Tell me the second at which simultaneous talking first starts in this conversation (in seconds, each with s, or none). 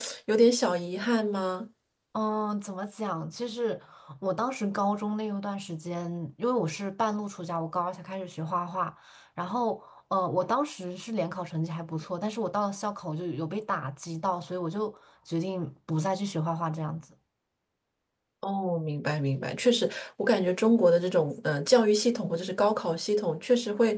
none